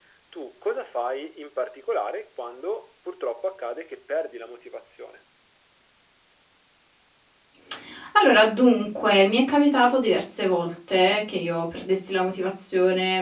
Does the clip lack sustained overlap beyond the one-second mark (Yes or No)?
Yes